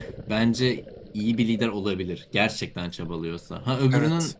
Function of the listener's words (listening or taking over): listening